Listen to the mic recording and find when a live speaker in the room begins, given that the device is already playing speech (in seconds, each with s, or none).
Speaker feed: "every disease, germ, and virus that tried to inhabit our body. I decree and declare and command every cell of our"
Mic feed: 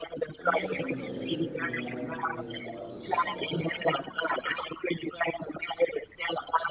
0.4 s